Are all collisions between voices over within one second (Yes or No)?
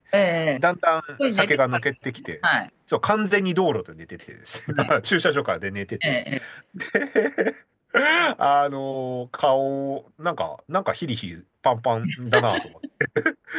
Yes